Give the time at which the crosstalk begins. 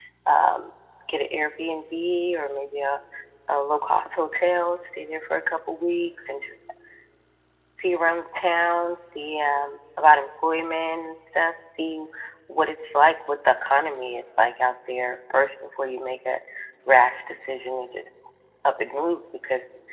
none

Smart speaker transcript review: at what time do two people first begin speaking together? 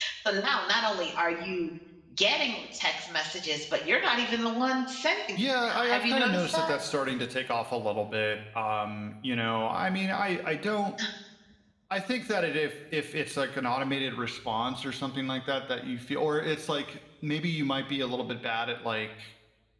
5 s

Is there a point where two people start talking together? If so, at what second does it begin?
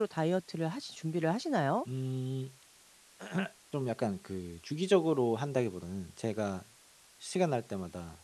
none

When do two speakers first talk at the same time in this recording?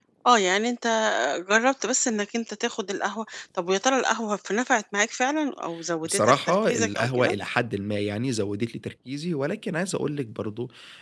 6 s

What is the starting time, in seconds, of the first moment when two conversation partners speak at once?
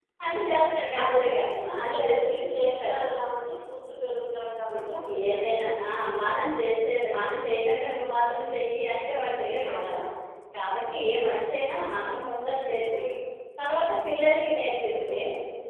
1 s

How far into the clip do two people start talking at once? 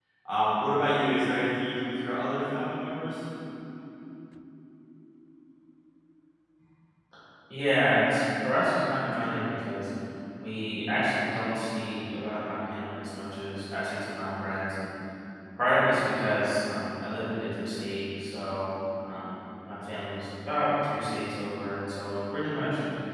none

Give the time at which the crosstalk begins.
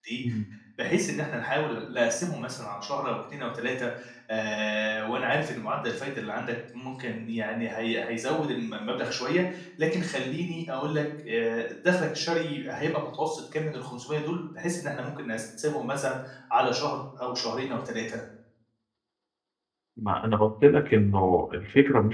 none

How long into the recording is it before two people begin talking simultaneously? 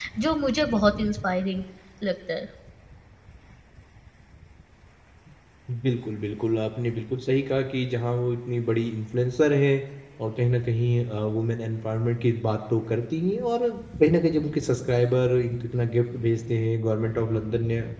none

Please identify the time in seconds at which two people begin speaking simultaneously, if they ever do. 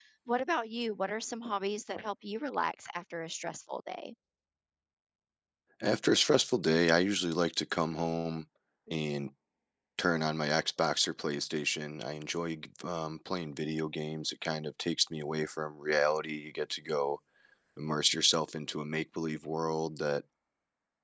none

